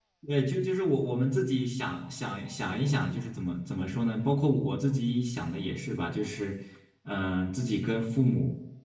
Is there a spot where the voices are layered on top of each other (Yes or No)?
No